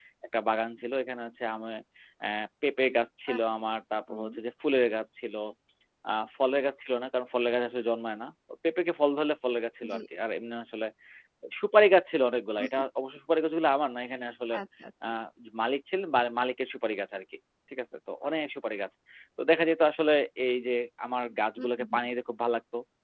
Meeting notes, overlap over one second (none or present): none